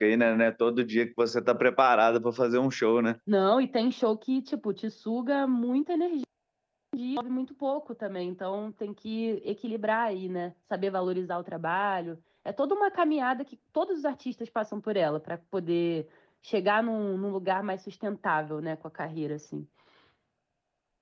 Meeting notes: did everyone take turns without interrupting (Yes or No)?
Yes